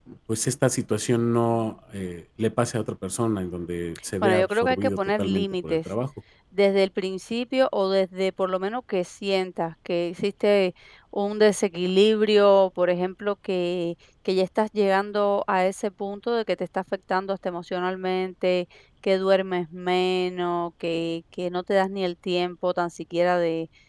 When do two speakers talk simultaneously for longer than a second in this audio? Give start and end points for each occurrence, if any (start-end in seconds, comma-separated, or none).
4.2-5.9